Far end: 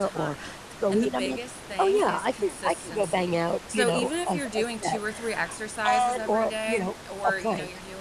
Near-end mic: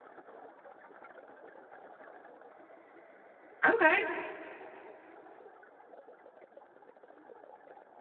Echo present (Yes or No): No